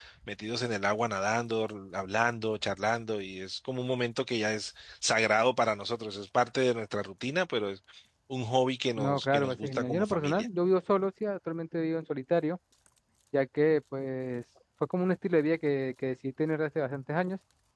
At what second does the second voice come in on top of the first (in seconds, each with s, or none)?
9.0 s